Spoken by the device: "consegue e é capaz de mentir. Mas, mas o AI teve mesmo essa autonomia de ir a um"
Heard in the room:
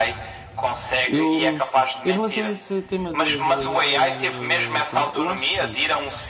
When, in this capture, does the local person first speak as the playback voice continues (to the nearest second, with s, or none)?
1 s